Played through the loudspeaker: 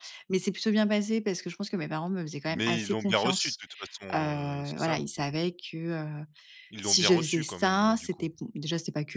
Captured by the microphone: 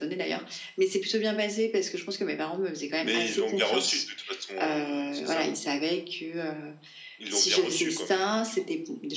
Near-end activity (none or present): none